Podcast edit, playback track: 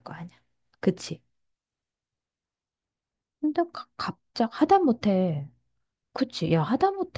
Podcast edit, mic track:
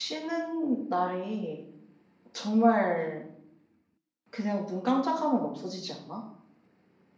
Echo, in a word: none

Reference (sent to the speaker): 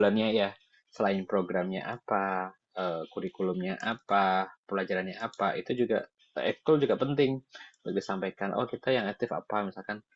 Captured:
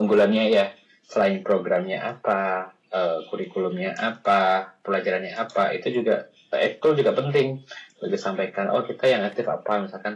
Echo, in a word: present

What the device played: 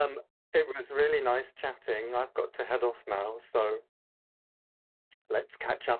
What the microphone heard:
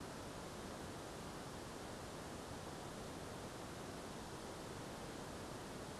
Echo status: none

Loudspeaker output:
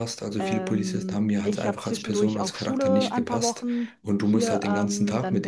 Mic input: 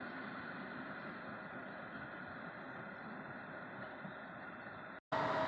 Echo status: none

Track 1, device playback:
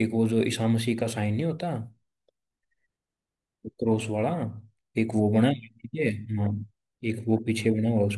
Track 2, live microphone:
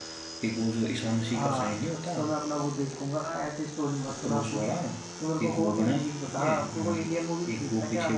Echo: present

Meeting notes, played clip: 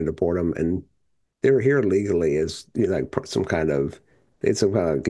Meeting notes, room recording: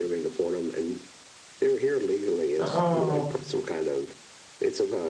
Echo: present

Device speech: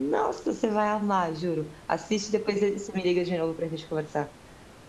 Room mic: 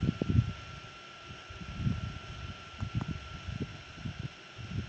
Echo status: none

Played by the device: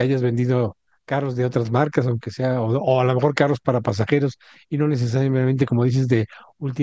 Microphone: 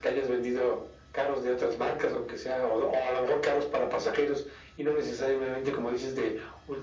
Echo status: present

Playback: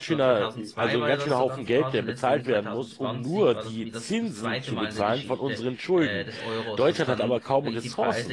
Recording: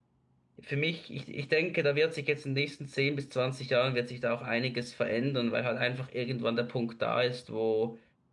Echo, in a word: none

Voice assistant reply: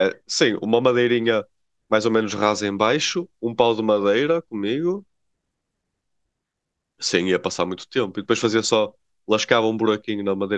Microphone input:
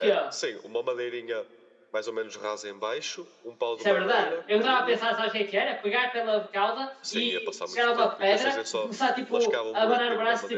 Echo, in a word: present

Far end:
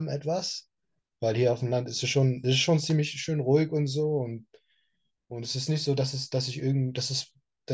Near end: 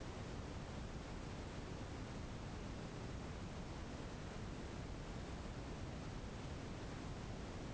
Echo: none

